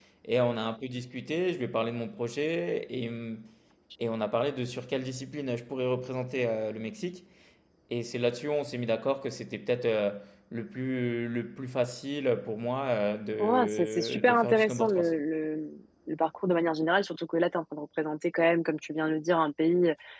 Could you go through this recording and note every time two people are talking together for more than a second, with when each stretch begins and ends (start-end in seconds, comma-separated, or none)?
13.7-15.1